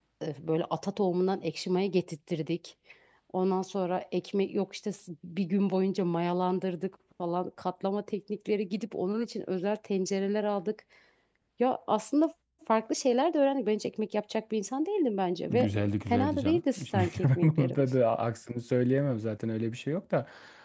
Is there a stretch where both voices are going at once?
Yes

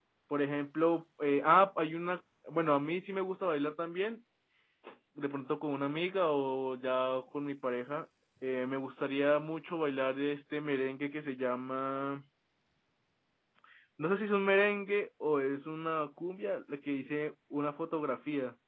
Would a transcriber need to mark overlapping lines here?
No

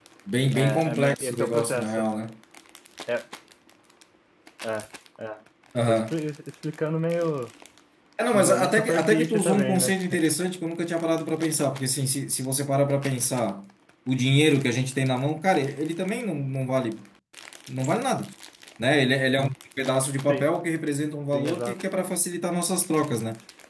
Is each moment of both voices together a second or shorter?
No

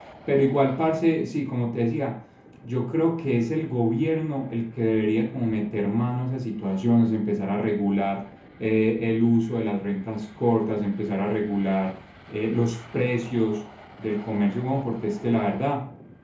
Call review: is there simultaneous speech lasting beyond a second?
No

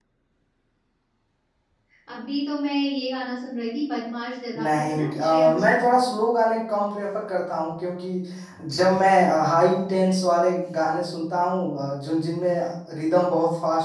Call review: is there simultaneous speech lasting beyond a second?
Yes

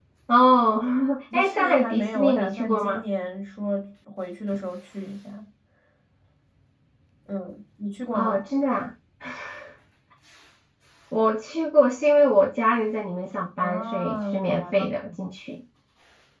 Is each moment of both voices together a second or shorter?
No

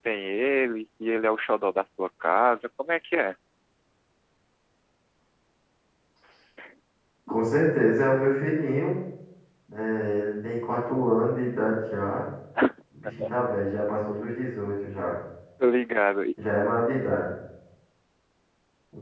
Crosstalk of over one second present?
No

